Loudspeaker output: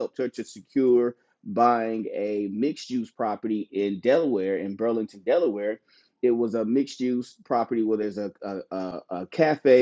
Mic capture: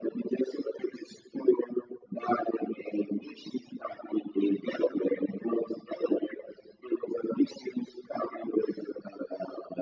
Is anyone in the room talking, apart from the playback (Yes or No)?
No